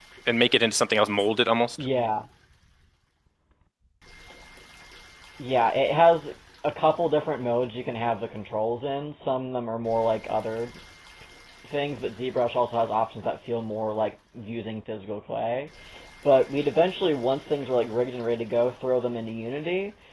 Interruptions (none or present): none